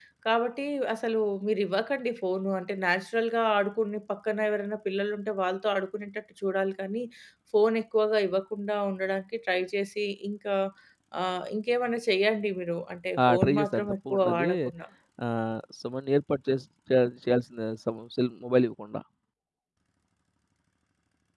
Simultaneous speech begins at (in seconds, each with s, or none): 13.2 s